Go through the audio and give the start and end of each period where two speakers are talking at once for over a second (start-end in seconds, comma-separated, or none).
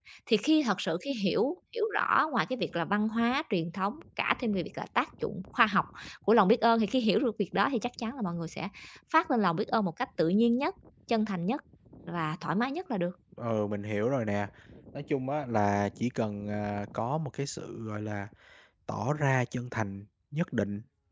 none